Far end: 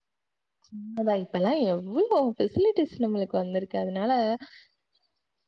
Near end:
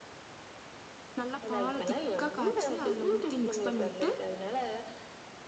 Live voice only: நல்லா பால்ல திக்கா காய்ச்சி அதுல ஊத்தி மிக்ஸ் பண்ணி விட் டு

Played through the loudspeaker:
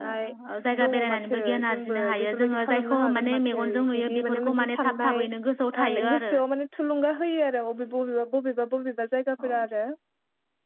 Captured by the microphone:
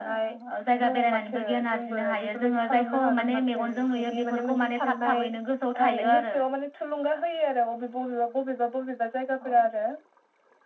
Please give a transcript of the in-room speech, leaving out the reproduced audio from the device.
none

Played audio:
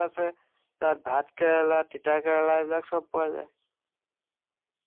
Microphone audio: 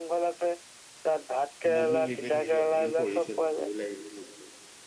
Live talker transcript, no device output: ইমানো হেৰি কৰি থাকিবি অকনমান পঢ়ি চলি ভালো লাগিব মন।

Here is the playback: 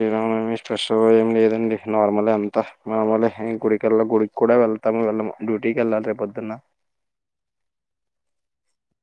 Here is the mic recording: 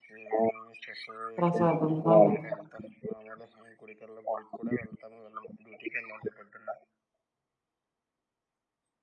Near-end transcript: ప్రసాదం అవును

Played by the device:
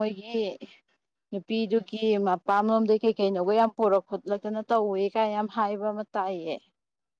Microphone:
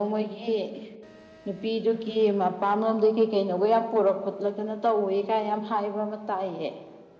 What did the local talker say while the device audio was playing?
none

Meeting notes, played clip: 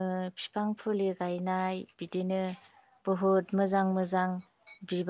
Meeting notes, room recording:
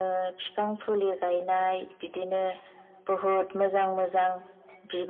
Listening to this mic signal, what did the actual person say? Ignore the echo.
none

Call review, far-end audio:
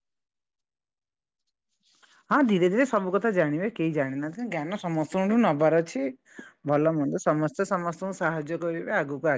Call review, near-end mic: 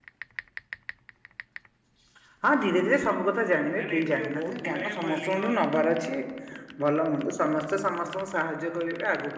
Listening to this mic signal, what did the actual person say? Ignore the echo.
ନାଇଁ ନଇଁ ଏଠି ଯୋଉ ବହୁତ ଗୁଡାଏ ଲିଙ୍ଗ

